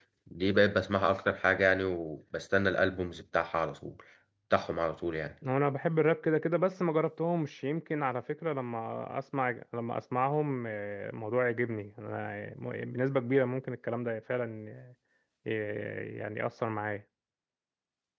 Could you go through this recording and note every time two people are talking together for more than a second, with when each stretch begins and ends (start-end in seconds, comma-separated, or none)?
none